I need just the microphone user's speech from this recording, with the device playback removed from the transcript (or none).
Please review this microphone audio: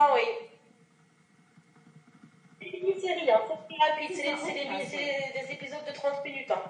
C'est ça, en place, ouais.